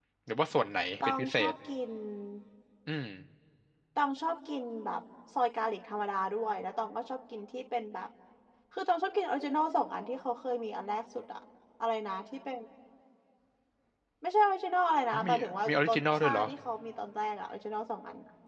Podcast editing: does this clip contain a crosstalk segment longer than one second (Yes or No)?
Yes